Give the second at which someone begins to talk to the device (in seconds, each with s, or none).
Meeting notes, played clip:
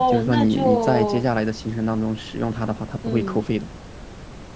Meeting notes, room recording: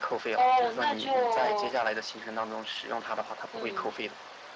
none